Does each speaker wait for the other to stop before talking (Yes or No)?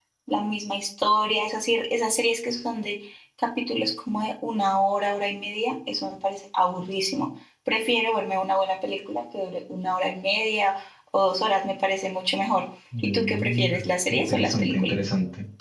No